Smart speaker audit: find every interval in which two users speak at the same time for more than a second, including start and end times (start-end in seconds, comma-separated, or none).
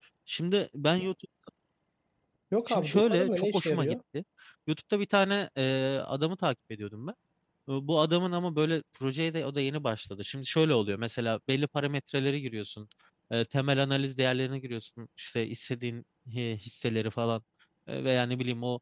2.7-4.0